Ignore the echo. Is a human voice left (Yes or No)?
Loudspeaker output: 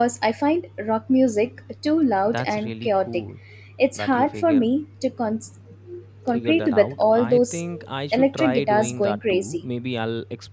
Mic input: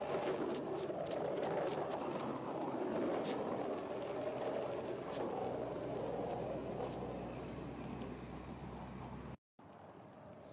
No